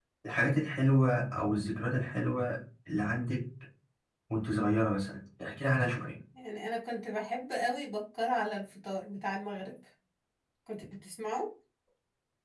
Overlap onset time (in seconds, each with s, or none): none